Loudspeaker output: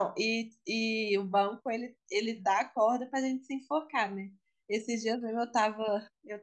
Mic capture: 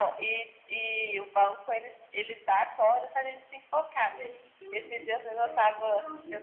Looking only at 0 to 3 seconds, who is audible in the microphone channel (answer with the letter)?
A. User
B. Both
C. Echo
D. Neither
C